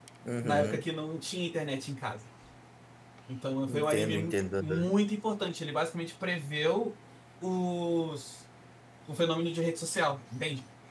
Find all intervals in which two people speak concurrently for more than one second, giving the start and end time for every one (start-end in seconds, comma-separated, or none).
3.7-4.9